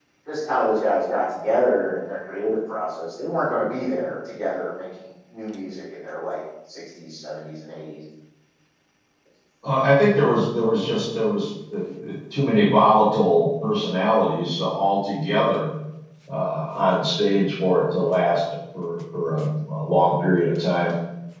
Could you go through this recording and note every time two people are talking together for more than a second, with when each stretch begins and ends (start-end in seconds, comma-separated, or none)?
none